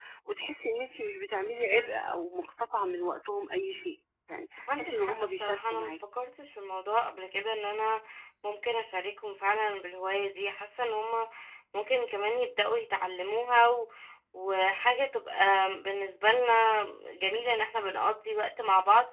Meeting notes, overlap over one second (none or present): present